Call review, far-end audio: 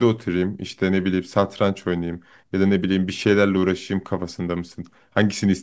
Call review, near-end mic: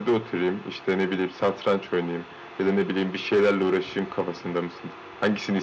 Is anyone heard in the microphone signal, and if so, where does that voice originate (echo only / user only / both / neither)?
echo only